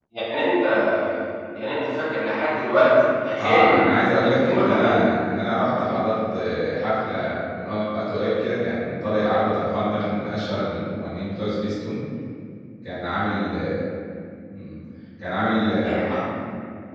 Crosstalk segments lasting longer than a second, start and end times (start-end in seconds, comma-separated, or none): 3.4-5.0